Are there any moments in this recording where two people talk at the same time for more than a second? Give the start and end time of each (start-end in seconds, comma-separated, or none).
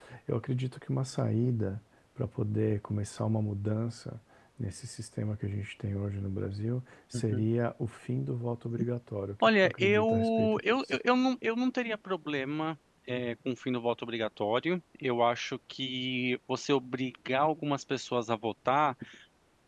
9.4-11.0